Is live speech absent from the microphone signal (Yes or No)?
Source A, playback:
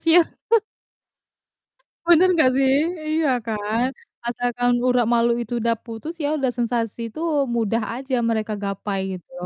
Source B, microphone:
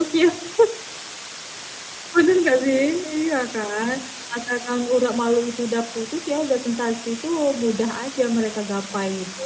Yes